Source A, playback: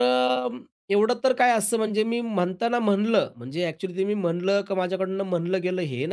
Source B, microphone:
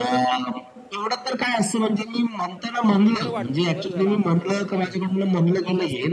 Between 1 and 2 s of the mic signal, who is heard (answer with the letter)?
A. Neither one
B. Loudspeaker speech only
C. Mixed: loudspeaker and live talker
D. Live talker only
B